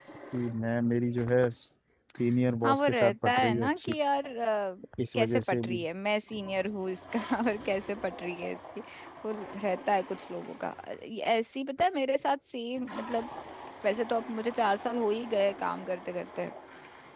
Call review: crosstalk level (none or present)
present